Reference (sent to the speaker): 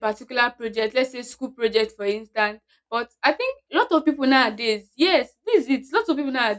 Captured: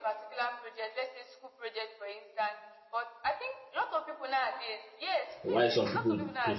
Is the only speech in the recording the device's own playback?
No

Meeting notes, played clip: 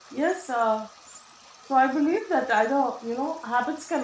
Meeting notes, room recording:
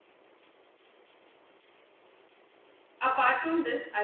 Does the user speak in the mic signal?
Yes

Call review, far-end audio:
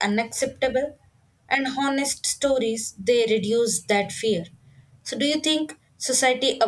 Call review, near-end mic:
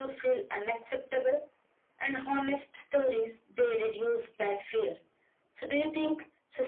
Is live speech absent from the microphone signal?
Yes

